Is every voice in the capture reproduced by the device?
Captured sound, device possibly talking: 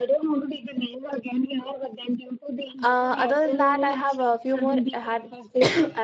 No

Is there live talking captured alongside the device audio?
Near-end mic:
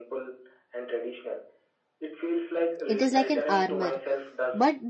Yes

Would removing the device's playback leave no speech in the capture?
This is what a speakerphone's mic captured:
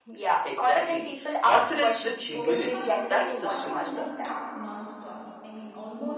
No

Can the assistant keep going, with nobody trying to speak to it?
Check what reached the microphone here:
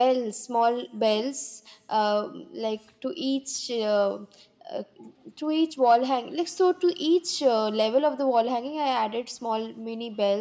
Yes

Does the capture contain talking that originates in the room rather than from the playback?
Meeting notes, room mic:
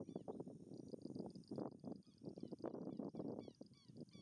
No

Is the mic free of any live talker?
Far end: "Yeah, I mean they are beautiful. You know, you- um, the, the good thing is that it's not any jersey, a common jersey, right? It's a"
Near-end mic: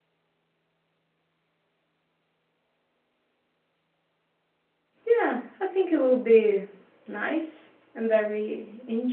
No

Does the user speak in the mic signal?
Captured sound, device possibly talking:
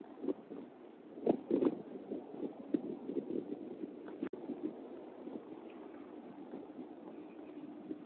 No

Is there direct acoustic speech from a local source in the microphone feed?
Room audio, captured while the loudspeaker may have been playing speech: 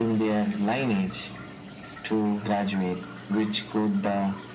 No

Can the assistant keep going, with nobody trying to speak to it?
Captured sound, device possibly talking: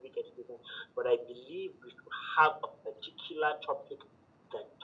Yes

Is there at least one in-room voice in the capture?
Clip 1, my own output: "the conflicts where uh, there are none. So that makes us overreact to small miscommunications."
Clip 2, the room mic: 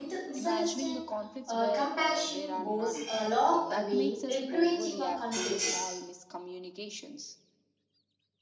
Yes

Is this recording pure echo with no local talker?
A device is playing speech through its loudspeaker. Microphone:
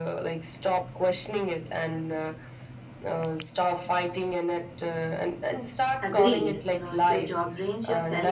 No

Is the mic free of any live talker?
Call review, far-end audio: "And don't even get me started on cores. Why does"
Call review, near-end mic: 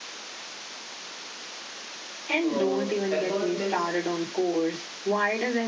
No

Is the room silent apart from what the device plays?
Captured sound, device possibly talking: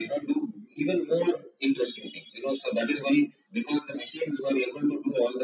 Yes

